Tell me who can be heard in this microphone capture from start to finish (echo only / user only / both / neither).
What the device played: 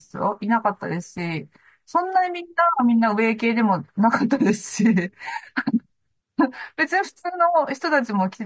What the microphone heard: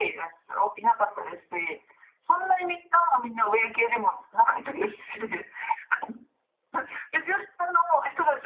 echo only